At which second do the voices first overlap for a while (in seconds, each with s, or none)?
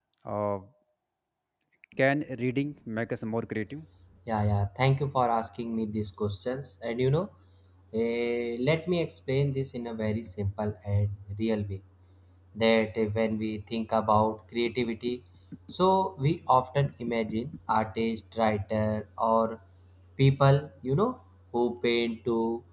none